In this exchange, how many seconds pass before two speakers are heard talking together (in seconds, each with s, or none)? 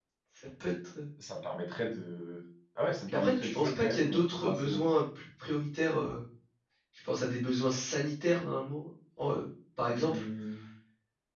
3.1 s